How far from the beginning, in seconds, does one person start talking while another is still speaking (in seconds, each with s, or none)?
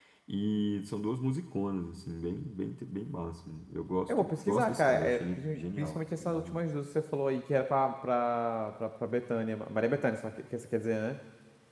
4.1 s